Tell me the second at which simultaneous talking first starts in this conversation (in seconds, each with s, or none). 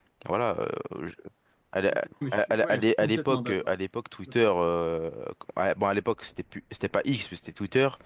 2.3 s